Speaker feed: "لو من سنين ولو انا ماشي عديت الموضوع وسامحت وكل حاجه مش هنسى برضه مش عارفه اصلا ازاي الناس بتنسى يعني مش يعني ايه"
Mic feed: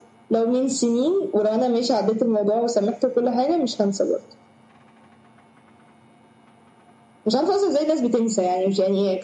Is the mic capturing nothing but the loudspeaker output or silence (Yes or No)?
Yes